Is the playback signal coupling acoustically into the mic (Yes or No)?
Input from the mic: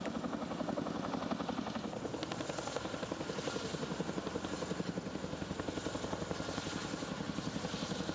No